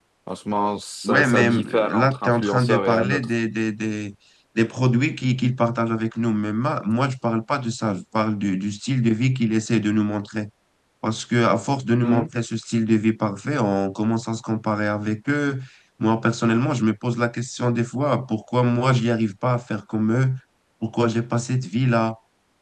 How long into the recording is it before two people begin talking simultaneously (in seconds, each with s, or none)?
1.0 s